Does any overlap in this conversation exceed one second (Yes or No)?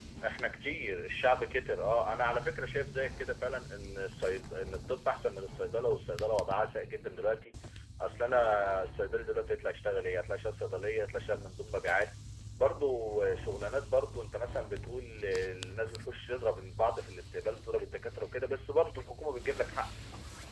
No